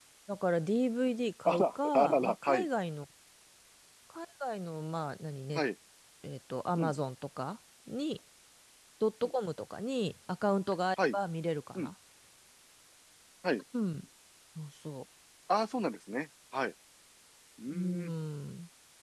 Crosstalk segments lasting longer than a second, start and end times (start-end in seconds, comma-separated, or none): 1.4-2.7